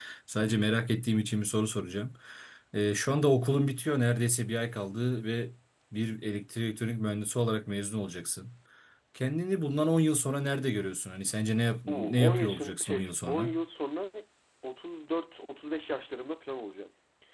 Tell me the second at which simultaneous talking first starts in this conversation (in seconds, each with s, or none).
11.9 s